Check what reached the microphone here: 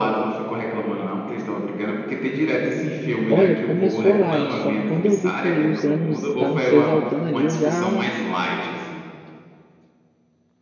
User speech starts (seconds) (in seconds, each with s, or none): 3.3 s